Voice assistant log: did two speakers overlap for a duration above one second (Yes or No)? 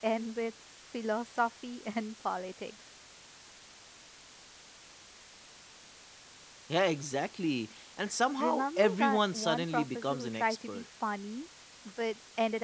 Yes